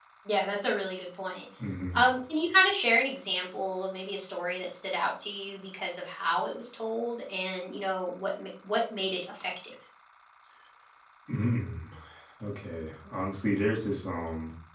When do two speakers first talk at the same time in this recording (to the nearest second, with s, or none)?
none